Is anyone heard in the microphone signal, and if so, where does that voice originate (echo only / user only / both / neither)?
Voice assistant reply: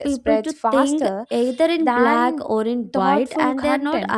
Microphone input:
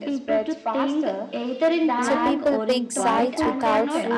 both